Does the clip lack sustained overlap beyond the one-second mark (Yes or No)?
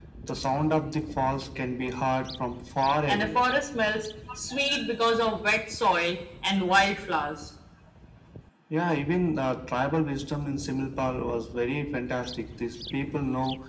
Yes